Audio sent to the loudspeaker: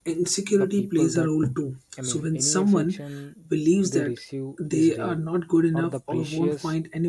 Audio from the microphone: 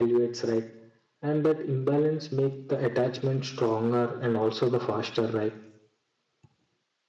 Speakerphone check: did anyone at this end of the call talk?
Yes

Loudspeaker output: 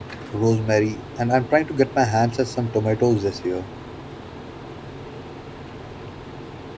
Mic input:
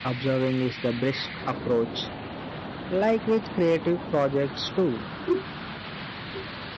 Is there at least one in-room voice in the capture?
Yes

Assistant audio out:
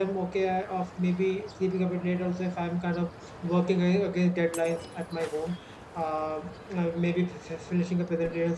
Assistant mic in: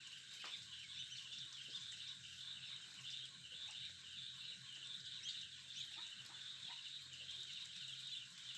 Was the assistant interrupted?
No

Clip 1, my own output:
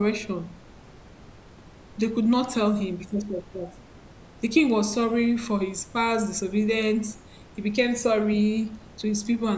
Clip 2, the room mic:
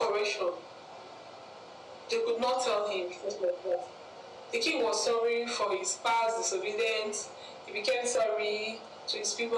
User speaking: No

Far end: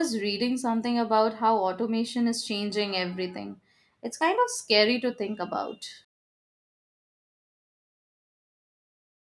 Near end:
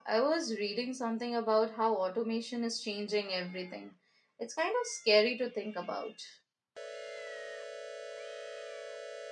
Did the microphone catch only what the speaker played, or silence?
Yes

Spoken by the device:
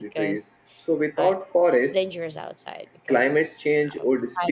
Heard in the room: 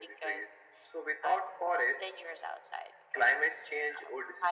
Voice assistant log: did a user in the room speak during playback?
No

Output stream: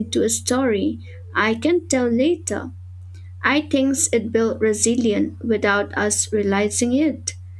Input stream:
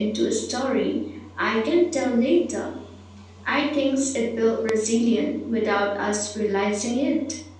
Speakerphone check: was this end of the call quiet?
Yes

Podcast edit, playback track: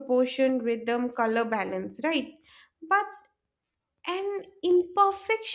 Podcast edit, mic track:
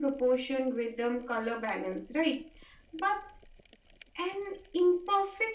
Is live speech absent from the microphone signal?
Yes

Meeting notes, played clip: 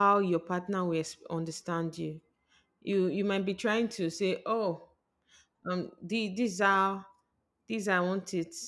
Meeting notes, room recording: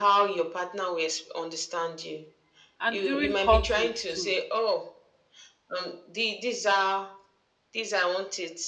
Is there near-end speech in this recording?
Yes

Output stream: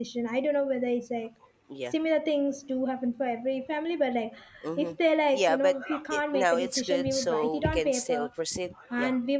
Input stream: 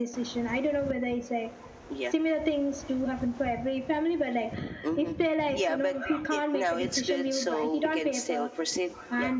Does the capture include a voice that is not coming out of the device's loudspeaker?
No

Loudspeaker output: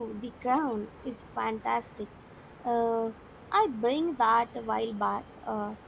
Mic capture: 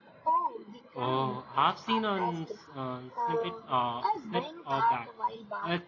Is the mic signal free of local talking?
No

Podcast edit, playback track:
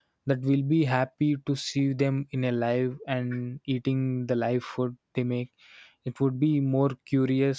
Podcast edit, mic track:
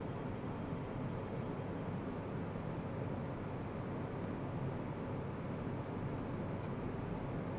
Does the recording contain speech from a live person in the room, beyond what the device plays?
No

